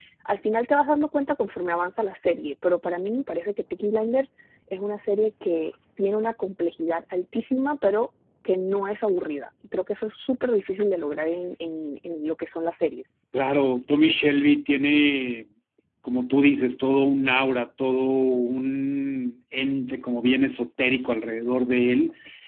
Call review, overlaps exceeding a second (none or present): none